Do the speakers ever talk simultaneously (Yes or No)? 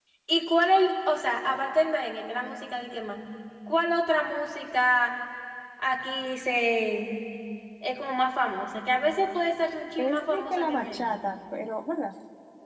Yes